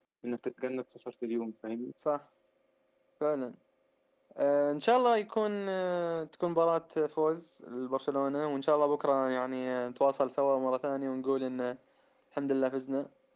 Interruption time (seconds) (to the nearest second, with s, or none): none